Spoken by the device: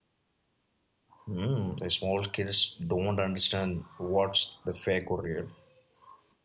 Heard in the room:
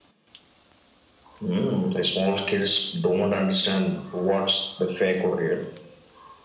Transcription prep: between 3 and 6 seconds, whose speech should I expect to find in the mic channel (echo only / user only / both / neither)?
echo only